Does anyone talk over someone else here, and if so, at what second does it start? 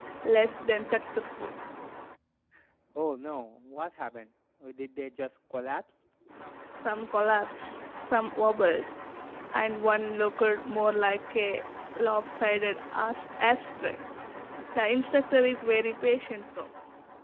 none

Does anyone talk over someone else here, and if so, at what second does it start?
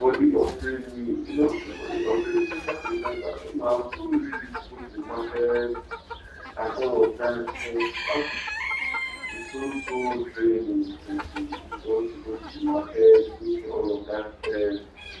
none

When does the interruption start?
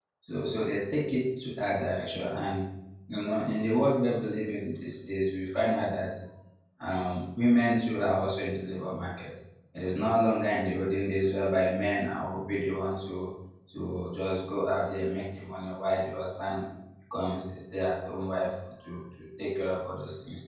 none

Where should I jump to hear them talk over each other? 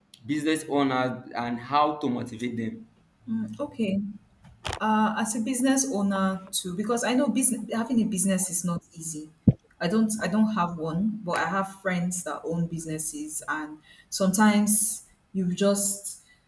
none

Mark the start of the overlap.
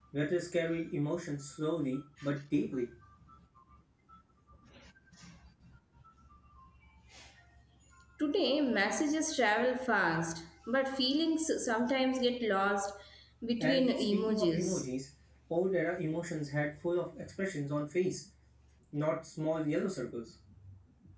13.6 s

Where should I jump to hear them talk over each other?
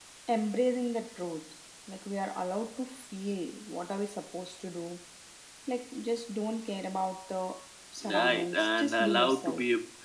8.0 s

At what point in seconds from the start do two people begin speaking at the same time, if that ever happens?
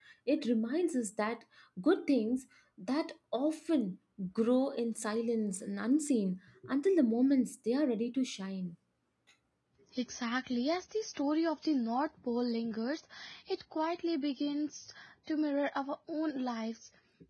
none

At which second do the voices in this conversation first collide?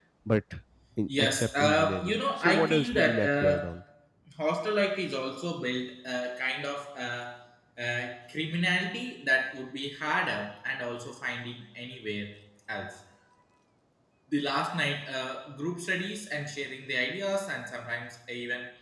1.2 s

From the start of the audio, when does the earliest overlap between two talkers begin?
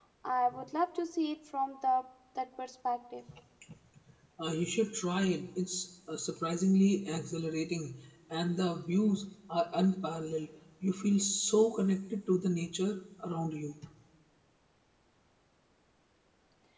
none

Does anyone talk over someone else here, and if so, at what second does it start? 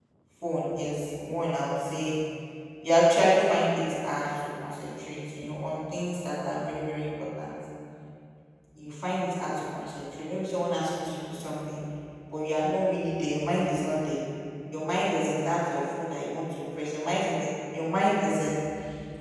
none

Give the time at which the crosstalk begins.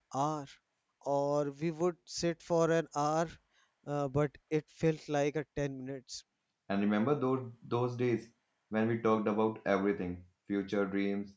none

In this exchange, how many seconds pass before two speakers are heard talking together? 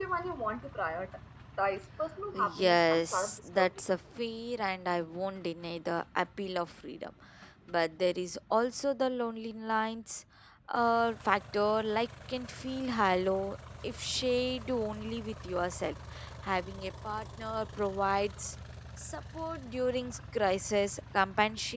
2.3 s

